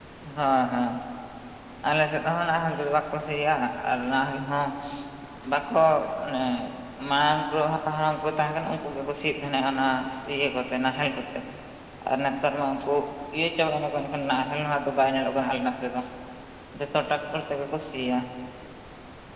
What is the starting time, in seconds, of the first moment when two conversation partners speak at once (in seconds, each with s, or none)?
none